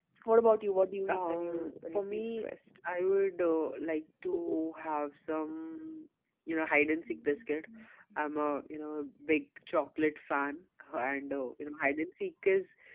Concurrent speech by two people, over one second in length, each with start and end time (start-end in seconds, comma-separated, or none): 1.1-2.4